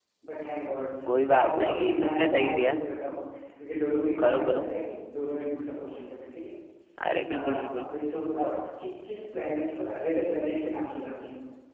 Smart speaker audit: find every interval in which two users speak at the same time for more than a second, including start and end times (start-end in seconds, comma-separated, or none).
1.2-2.8